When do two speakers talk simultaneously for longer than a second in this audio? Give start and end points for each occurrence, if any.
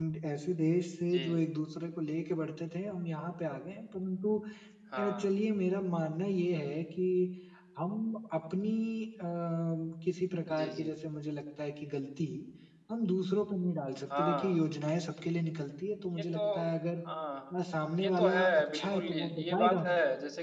18.0-19.8

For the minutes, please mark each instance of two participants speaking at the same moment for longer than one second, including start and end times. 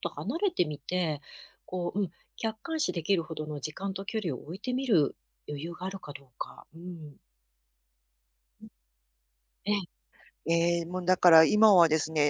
none

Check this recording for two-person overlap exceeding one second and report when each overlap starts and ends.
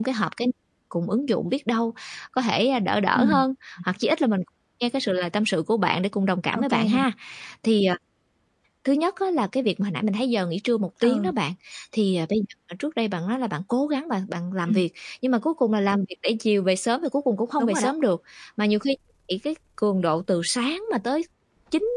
none

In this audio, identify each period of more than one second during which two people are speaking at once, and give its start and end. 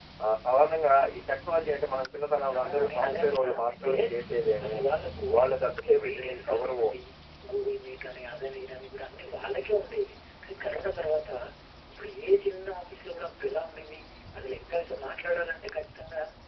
2.5-3.9, 5.3-6.7

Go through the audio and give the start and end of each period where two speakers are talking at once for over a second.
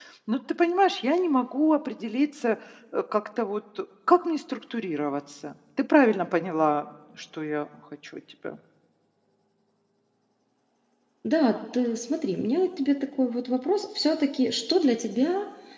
none

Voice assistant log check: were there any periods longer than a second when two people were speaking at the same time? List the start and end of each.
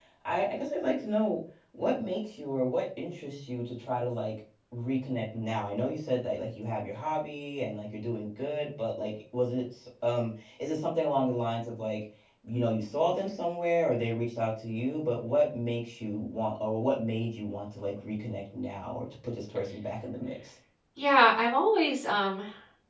none

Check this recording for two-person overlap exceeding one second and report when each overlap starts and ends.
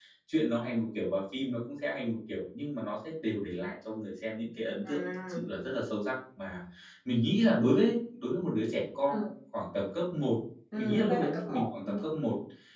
10.8-12.0

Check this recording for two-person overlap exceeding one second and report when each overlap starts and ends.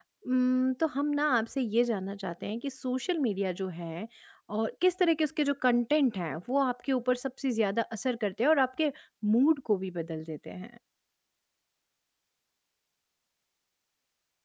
none

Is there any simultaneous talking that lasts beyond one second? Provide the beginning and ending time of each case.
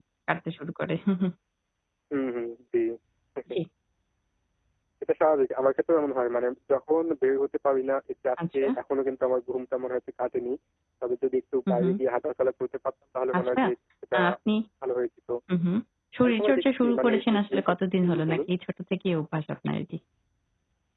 16.2-17.6

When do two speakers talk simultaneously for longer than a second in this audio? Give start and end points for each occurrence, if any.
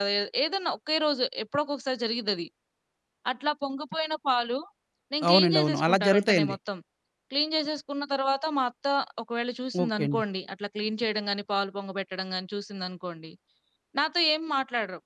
5.3-6.5

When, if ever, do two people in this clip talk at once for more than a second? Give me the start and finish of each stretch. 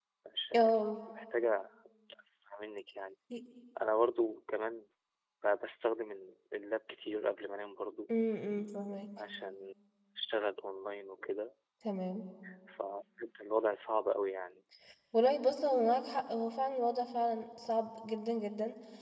none

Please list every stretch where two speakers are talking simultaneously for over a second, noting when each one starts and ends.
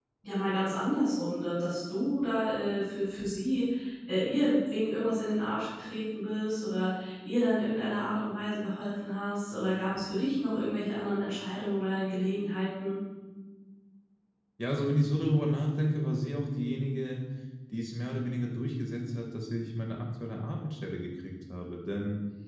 none

